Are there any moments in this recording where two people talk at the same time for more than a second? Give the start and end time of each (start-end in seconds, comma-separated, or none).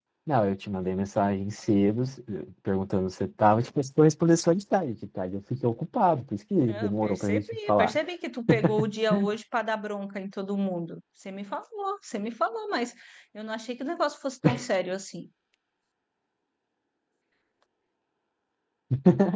6.7-8.0